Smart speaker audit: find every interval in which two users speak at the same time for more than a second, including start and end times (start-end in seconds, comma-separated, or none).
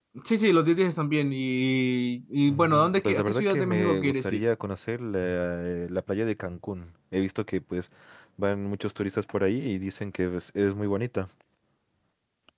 2.5-4.4